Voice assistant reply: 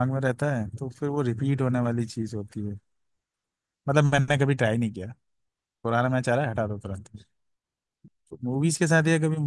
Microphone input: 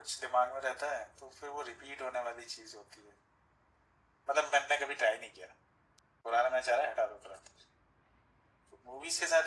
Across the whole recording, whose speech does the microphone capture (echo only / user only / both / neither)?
echo only